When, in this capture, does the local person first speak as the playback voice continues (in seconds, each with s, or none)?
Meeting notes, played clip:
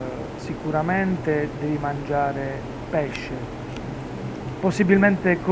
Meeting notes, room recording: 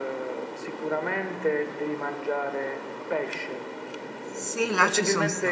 4.3 s